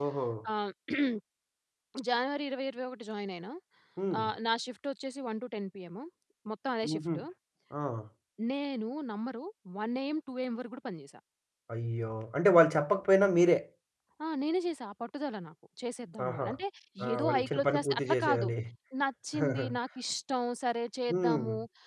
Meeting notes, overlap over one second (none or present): present